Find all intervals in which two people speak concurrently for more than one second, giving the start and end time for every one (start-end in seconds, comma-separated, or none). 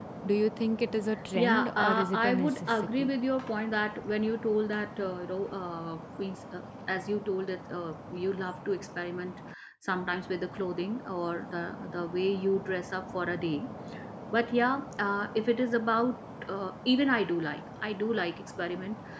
1.4-3.1